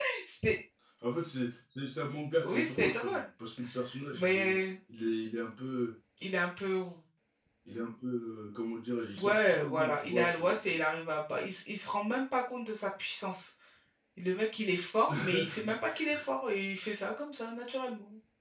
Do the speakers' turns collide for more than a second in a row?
Yes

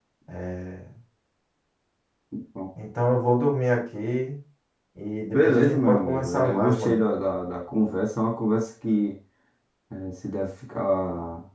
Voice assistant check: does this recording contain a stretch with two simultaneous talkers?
Yes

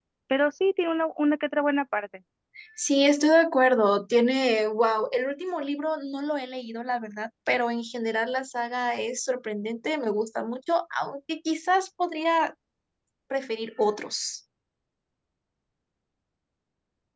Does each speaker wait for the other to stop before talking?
Yes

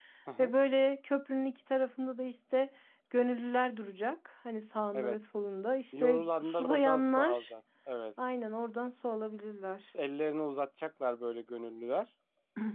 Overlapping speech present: Yes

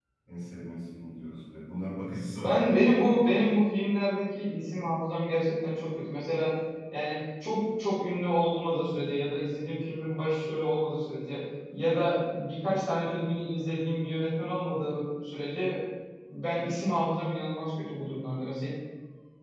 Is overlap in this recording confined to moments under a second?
Yes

